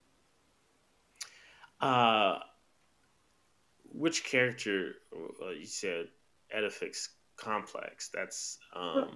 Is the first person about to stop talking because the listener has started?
Yes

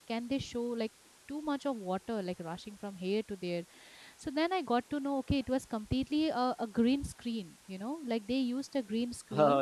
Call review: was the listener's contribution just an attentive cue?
Yes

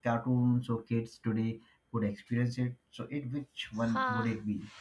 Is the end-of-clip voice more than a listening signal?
Yes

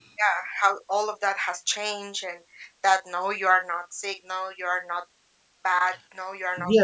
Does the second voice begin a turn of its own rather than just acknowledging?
Yes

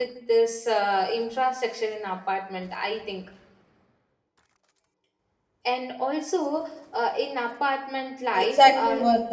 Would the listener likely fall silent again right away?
No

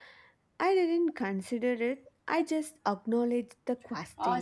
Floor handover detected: Yes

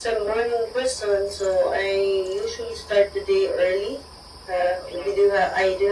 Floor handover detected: No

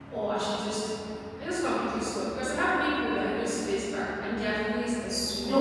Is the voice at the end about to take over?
No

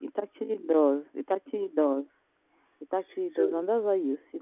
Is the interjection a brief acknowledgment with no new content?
Yes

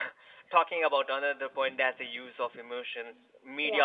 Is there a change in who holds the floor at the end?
No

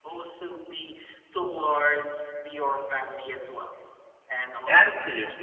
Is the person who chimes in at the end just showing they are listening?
No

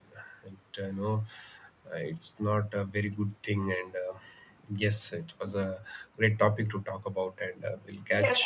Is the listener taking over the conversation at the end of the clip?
Yes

